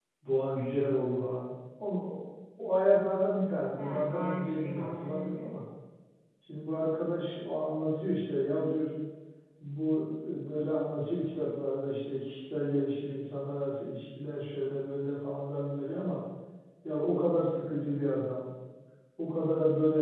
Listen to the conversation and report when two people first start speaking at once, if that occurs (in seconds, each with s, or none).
3.8 s